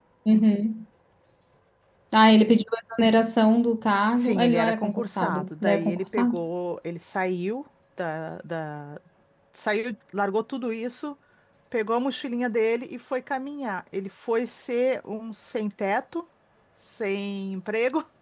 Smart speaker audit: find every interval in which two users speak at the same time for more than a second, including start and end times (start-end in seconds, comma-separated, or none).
4.2-6.4